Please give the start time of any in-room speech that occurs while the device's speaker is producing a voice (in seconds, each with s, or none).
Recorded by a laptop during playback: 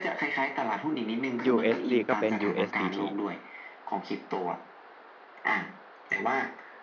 1.4 s